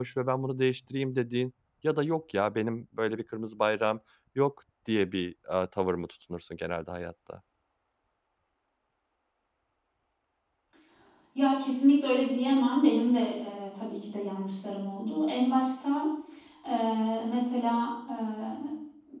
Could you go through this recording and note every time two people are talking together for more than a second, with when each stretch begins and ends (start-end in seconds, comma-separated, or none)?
none